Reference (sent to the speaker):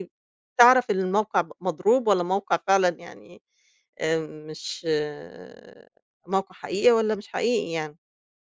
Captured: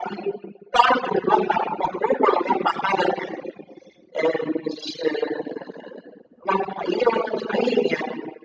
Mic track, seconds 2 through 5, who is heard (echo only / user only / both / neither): echo only